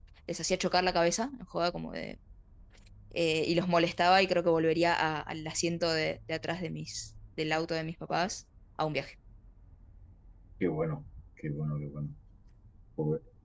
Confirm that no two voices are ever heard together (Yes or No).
Yes